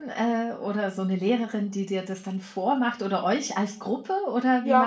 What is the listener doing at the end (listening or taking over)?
taking over